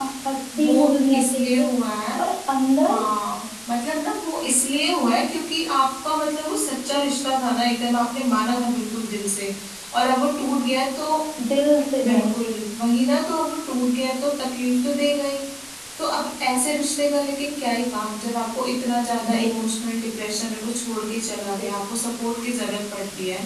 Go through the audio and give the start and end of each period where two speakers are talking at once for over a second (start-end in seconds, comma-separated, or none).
none